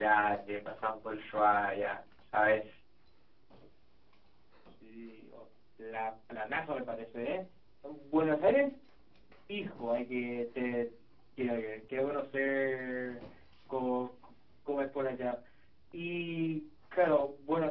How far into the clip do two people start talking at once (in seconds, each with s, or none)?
none